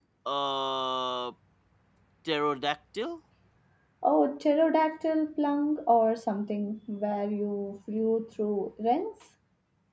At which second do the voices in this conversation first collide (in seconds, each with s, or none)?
none